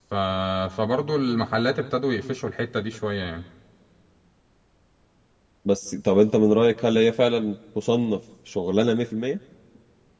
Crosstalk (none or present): none